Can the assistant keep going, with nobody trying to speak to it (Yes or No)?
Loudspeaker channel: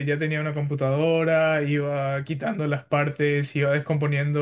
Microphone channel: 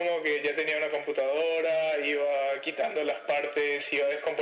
Yes